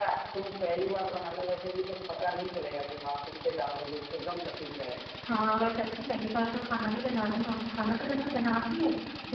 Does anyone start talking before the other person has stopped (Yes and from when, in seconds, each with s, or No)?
No